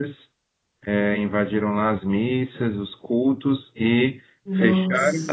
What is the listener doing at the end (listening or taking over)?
listening